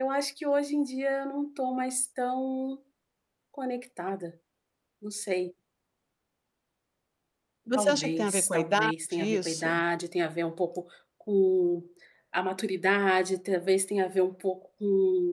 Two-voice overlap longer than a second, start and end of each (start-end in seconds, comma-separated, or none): 7.7-9.8